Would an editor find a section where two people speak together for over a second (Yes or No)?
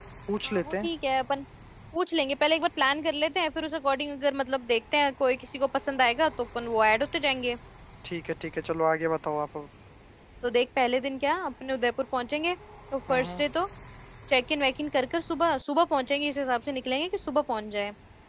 No